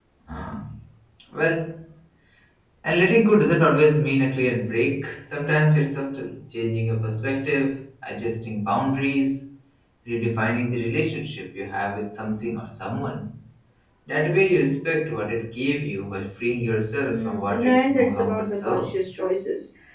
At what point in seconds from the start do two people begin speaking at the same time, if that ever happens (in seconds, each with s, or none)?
17.1 s